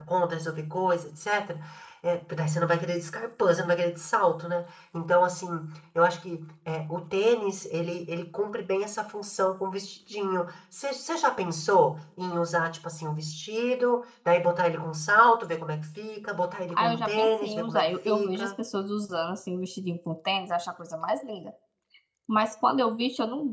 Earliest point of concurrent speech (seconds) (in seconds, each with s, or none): 16.7 s